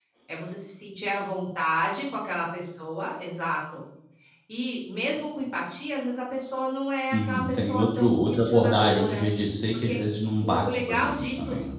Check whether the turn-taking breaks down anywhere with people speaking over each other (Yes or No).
Yes